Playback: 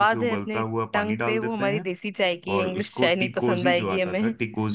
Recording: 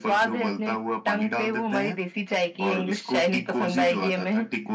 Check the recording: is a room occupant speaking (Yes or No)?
No